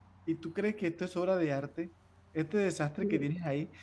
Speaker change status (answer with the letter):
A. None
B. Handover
A